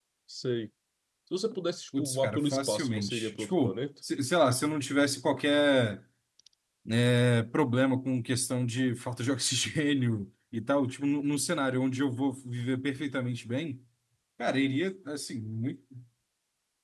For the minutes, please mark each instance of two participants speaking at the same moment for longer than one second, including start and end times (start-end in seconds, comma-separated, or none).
2.0-3.8